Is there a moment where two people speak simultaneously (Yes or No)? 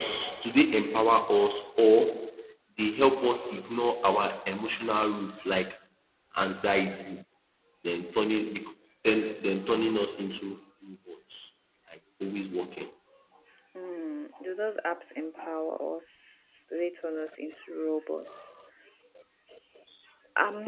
No